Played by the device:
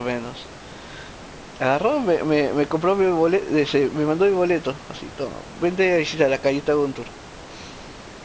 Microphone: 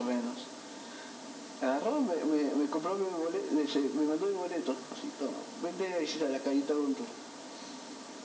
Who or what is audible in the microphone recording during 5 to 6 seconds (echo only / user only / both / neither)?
echo only